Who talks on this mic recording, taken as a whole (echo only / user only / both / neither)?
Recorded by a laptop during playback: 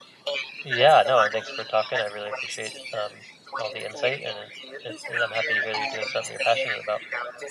both